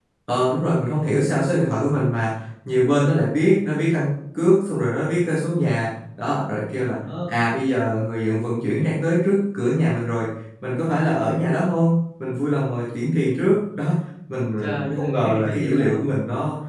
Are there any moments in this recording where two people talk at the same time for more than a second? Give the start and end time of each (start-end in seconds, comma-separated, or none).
14.6-15.9